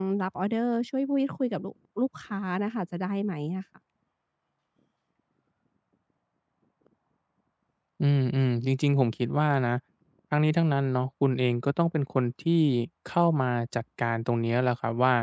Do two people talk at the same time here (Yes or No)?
No